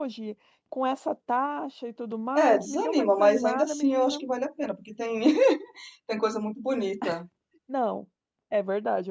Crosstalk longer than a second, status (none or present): present